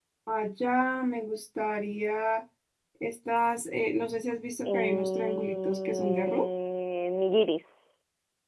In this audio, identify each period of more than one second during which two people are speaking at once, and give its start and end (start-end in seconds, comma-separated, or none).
4.6-6.4